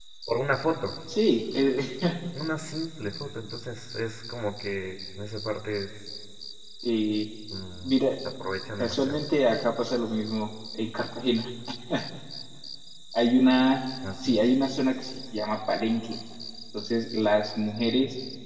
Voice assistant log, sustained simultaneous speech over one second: none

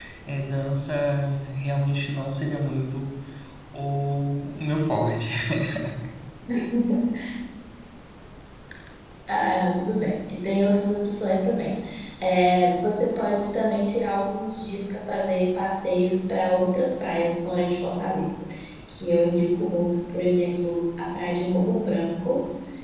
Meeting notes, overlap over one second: none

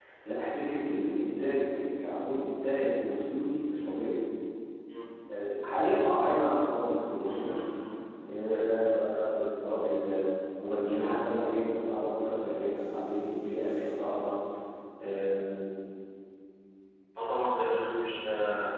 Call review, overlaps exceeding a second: none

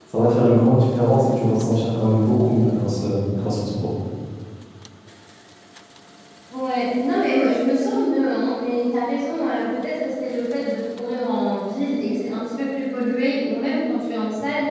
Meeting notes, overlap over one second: none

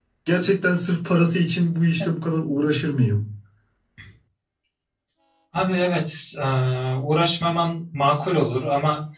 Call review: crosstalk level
none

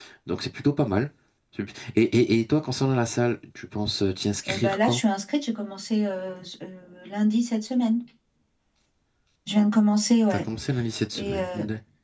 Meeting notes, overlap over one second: none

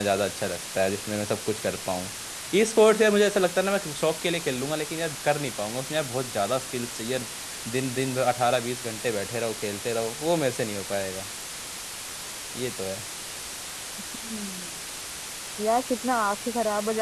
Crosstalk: none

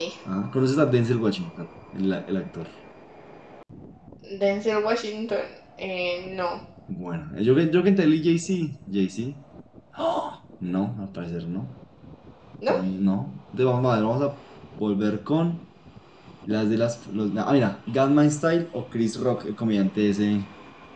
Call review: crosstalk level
none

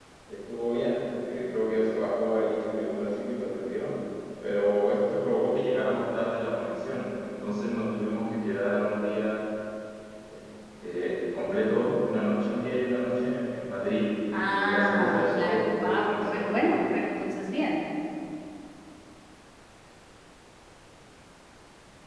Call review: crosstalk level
present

